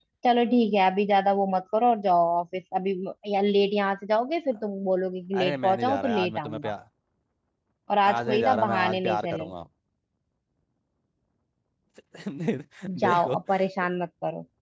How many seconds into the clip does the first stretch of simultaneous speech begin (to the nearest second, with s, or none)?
5 s